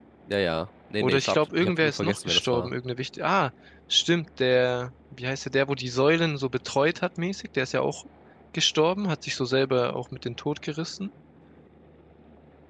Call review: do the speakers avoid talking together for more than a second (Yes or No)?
No